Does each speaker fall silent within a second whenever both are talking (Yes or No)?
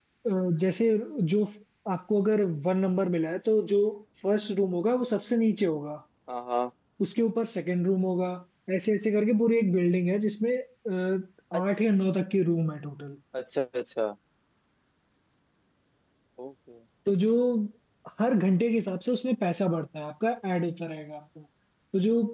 Yes